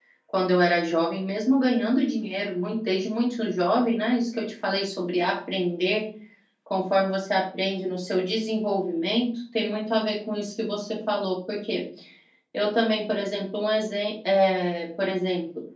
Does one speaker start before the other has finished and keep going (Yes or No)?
No